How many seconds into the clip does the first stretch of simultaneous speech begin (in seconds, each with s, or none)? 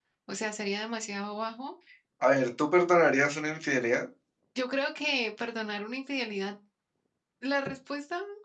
none